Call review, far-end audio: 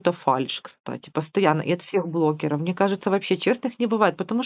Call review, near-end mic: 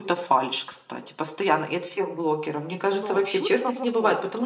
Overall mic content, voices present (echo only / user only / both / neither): both